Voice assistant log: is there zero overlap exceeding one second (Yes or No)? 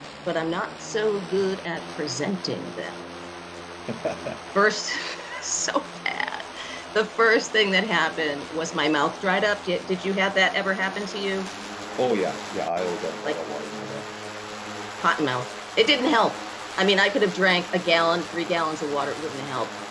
Yes